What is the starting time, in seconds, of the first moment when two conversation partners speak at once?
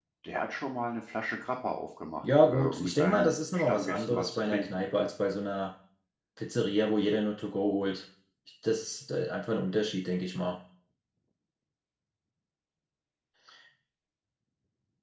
2.2 s

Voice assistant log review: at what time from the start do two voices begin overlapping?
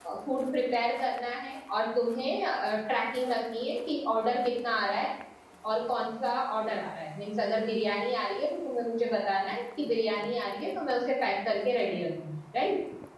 none

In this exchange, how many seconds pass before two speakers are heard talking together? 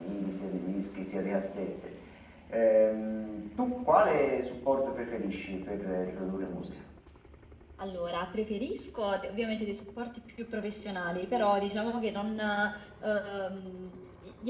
none

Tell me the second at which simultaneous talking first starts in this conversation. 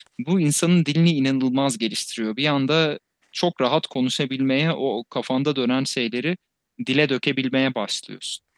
none

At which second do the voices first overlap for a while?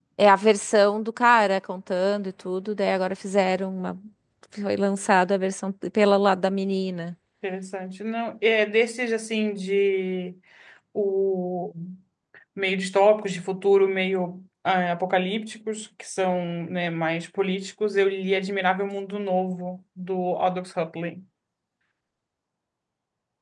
none

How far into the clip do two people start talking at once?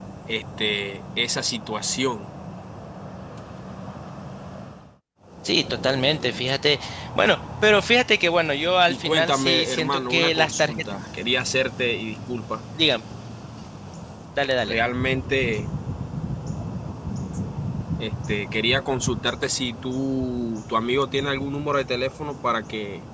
8.9 s

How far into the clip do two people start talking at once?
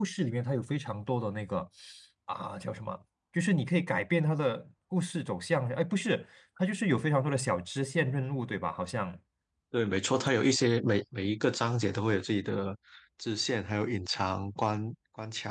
none

